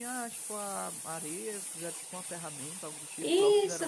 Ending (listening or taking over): taking over